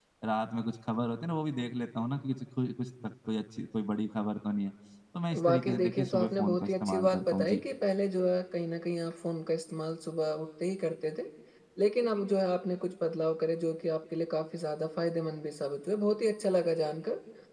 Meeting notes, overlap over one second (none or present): present